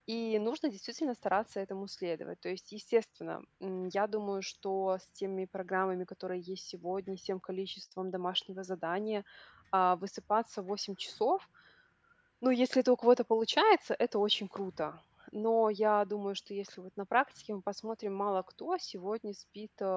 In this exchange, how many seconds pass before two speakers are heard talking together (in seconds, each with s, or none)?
none